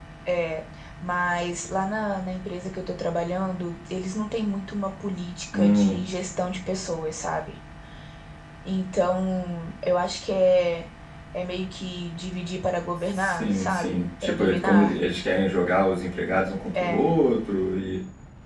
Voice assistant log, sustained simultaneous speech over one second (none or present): present